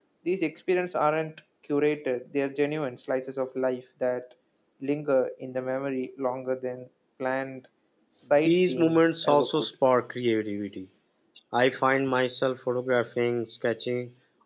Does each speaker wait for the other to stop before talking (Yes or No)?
No